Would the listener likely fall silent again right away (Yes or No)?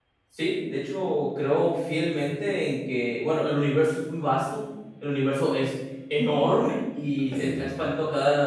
Yes